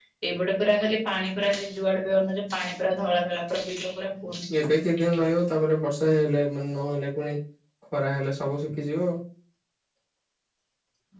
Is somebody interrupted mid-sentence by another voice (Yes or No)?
No